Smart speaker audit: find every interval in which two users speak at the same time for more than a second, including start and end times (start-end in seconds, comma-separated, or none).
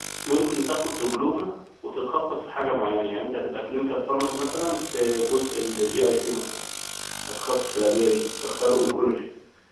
none